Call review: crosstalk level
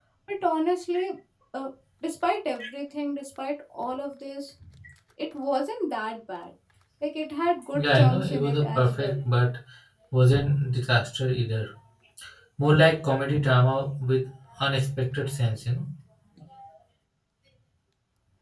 present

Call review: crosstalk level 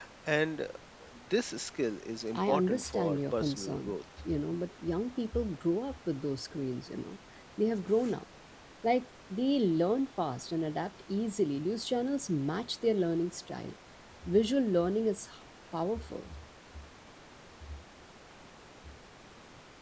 present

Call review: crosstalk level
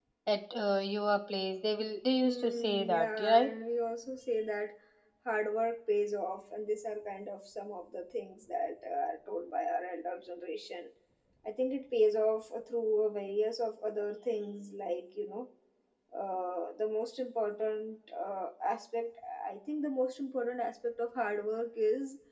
present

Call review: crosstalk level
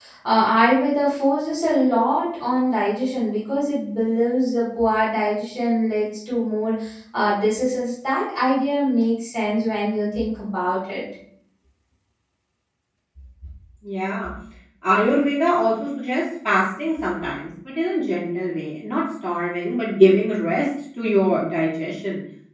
none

